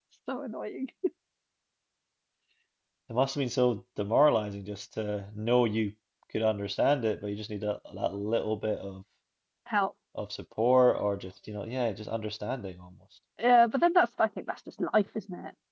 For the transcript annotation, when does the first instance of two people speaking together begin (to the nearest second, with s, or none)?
none